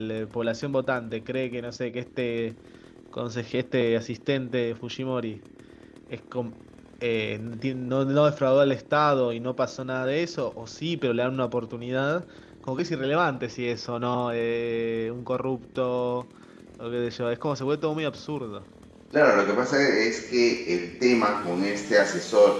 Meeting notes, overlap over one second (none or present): none